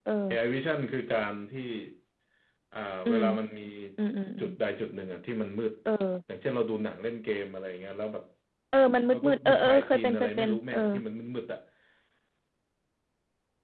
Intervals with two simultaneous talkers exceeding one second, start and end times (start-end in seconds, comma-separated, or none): 9.1-10.8